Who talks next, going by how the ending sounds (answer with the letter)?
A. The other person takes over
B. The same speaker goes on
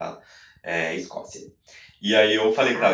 B